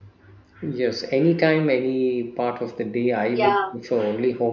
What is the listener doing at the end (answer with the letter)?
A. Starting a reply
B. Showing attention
B